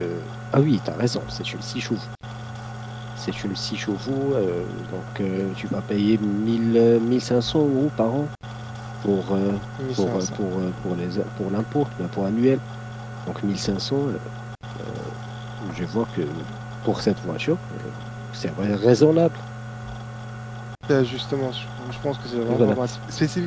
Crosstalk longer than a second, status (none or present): none